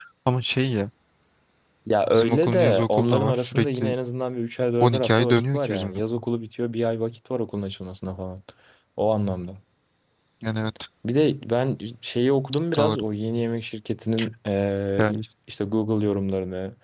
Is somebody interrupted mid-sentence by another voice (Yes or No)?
Yes